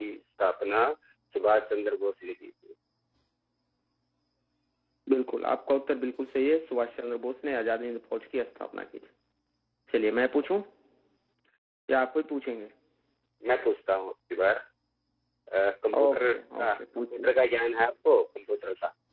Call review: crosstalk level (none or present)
present